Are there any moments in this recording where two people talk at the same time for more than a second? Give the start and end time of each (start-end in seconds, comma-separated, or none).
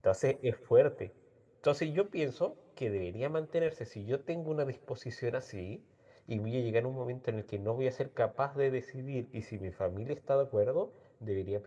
none